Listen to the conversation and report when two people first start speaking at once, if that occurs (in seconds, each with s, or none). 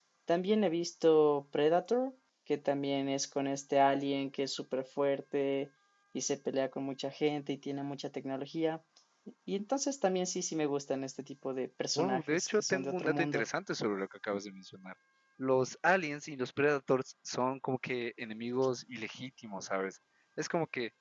11.9 s